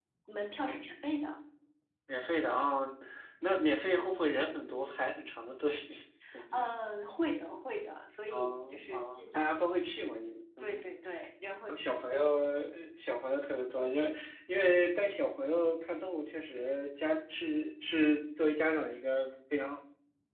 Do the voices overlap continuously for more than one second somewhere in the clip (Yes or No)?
Yes